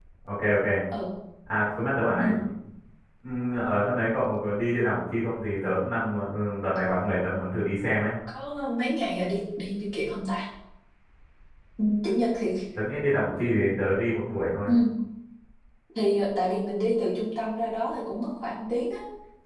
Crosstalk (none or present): none